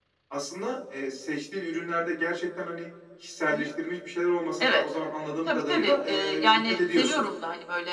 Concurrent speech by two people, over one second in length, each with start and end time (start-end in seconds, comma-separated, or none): 5.4-7.3